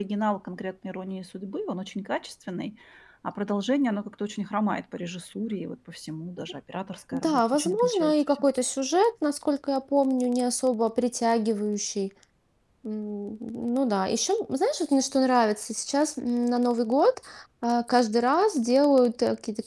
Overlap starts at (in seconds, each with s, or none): 7.1 s